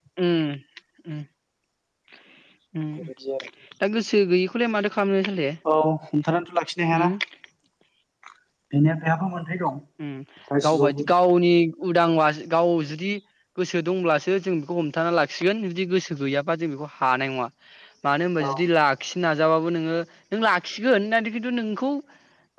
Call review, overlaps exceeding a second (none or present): none